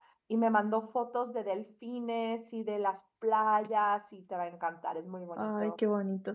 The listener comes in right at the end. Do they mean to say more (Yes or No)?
Yes